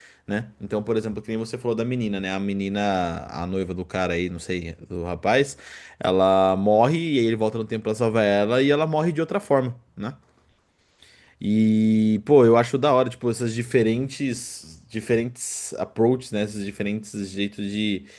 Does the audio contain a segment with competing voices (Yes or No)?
No